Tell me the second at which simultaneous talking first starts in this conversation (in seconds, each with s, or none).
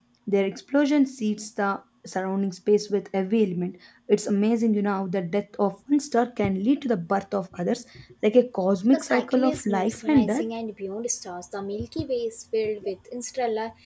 8.9 s